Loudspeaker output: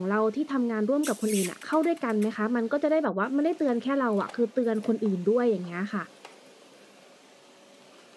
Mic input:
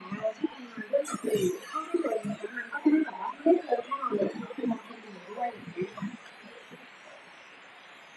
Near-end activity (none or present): none